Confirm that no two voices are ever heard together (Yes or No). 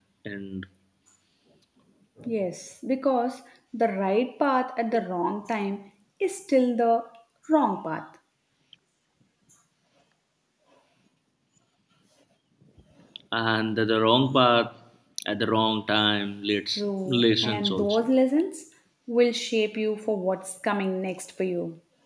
No